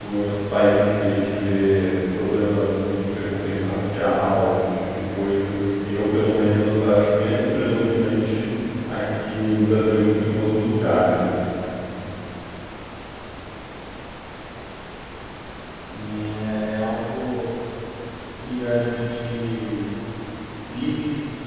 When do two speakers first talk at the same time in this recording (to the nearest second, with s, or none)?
none